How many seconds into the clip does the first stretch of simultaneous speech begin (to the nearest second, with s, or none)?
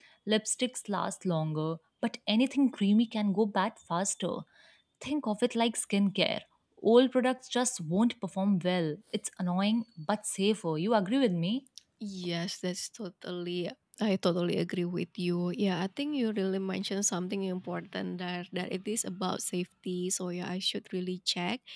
none